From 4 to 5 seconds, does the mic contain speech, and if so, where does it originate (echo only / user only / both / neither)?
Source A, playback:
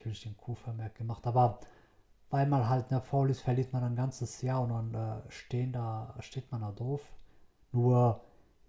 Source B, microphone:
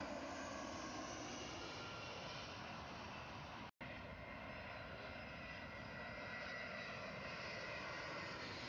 neither